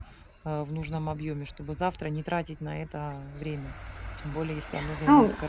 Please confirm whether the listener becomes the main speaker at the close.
Yes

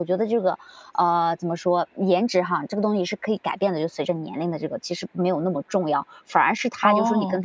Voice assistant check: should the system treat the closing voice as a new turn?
No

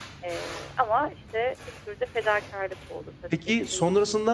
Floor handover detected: Yes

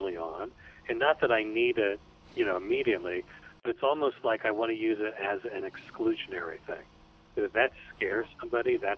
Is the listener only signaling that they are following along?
Yes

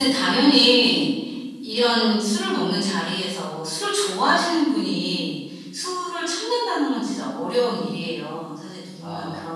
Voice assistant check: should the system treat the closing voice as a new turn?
No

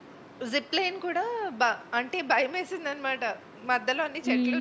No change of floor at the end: Yes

